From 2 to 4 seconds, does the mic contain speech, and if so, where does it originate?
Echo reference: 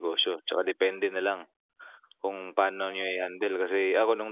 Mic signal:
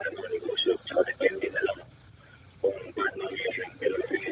echo only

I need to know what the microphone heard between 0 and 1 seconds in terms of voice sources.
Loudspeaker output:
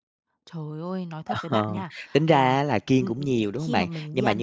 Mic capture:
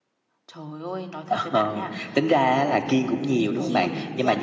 echo only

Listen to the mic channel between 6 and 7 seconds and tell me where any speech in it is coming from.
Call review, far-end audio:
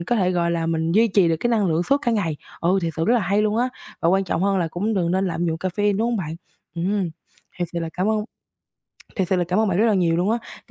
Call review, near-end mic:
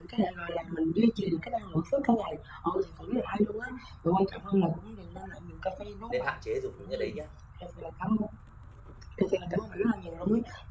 both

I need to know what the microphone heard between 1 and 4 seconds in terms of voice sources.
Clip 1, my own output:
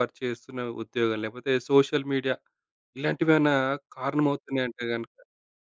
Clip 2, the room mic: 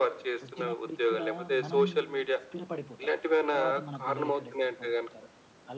both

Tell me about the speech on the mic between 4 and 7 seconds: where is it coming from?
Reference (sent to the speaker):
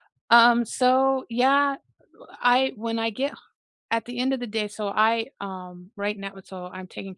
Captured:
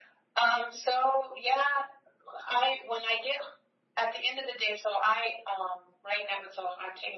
echo only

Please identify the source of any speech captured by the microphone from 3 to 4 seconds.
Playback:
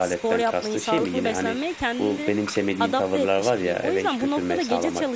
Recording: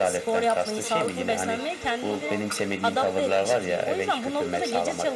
both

